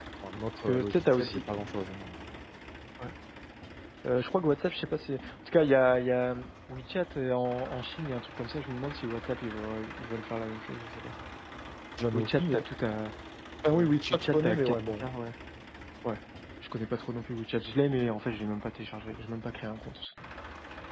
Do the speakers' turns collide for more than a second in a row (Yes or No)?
Yes